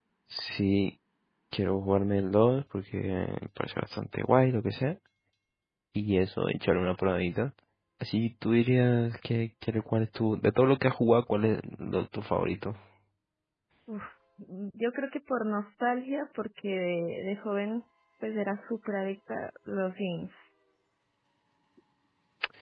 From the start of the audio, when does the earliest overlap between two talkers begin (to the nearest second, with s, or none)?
none